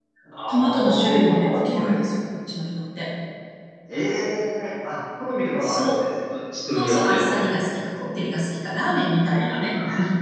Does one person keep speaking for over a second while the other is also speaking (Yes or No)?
Yes